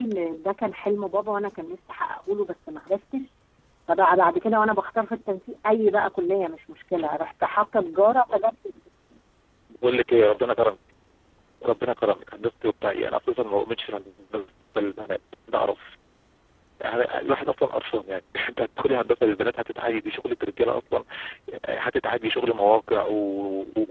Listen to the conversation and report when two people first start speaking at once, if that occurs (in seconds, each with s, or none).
none